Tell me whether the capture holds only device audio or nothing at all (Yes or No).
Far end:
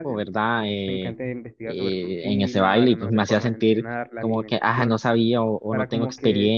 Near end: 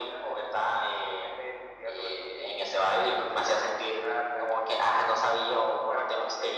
Yes